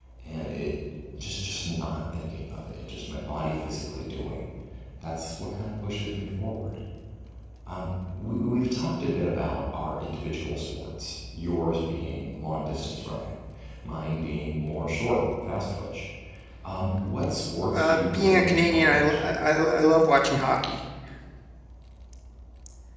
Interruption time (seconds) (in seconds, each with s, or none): 17.7 s